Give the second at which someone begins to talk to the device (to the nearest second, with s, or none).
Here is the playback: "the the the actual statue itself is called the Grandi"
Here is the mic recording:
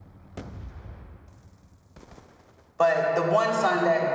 3 s